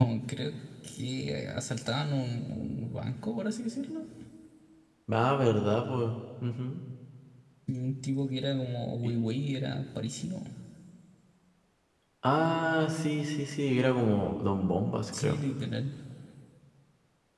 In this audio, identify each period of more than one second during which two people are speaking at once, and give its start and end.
none

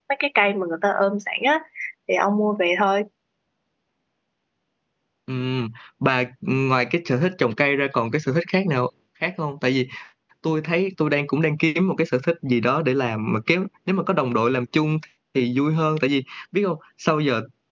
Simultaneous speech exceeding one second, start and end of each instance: none

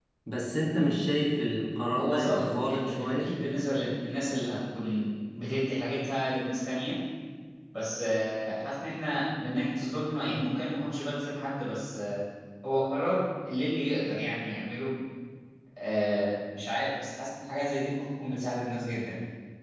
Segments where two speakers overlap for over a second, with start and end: 2.0-3.4

